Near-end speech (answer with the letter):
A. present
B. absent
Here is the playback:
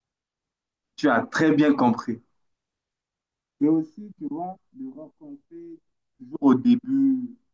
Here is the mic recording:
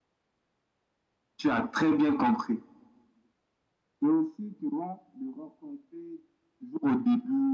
B